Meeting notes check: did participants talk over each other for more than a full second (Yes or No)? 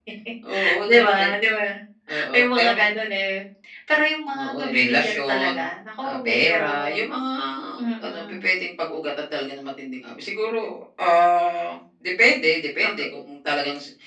Yes